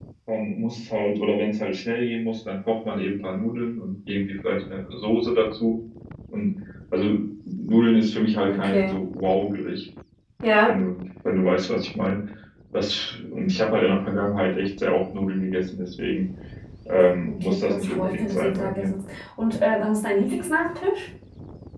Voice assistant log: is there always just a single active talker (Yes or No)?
No